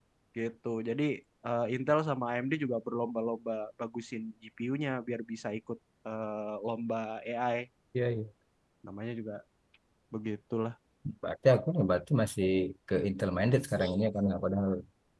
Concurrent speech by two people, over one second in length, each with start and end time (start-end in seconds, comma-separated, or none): none